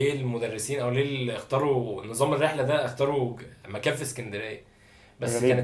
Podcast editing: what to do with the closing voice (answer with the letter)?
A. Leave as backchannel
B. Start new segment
A